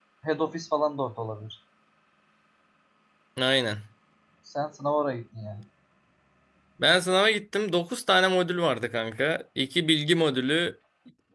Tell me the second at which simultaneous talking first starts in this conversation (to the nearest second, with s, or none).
none